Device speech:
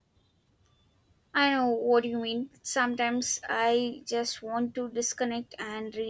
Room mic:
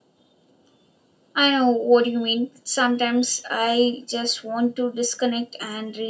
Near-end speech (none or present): none